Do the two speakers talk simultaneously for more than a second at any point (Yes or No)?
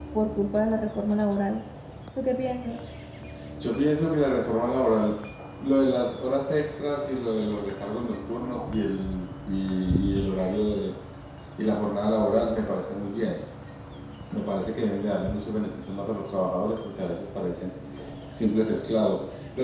No